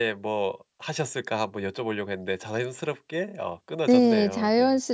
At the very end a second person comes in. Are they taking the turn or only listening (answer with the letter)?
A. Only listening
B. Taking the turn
B